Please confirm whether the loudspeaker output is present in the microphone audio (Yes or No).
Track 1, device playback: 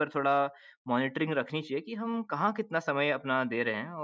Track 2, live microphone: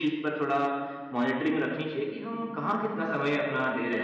Yes